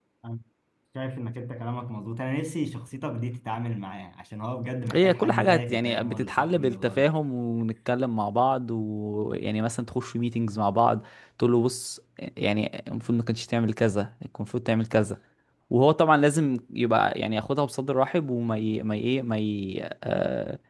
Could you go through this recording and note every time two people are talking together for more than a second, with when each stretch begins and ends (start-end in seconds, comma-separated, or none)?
4.9-7.1